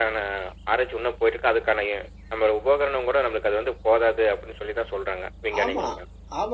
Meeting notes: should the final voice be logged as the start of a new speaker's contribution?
Yes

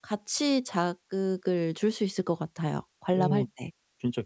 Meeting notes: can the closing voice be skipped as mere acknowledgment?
No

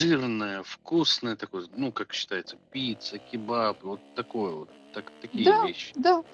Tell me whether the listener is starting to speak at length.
Yes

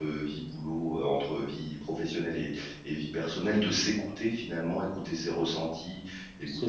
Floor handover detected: No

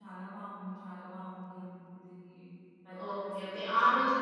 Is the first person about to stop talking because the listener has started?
Yes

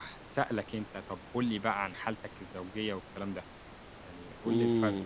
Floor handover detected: Yes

